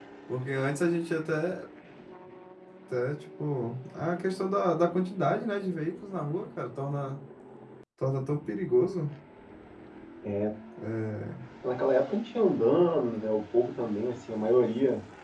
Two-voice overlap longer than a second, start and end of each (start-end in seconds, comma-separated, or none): none